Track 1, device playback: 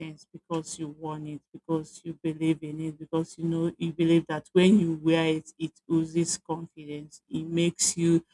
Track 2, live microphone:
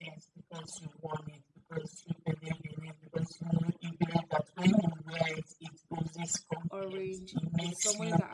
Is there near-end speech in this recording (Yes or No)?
Yes